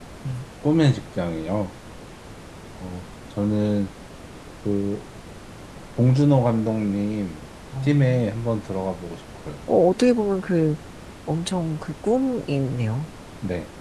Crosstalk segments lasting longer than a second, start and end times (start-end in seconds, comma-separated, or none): none